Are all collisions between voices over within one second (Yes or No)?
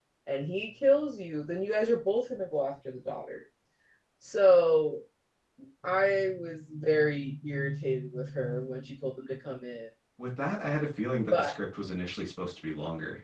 Yes